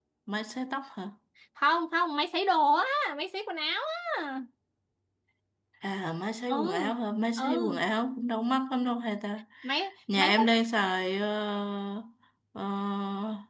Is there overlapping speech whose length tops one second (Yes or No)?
No